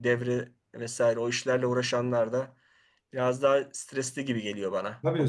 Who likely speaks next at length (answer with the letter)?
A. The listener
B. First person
A